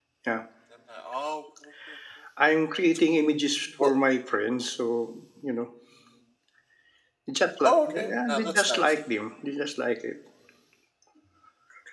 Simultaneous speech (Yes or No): Yes